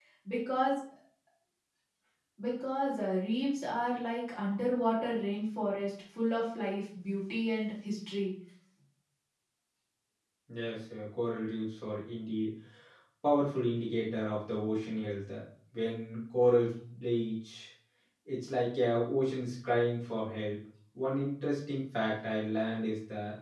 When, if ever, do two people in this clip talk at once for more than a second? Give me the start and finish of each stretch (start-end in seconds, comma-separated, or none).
none